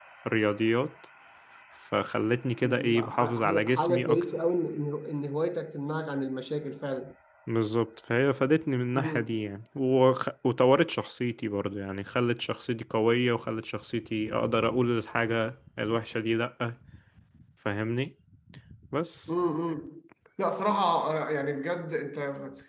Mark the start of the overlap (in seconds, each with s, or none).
2.6 s